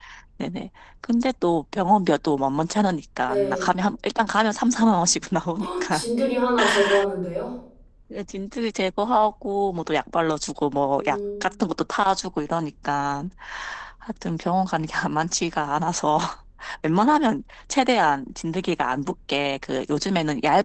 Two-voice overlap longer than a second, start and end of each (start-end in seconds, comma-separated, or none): none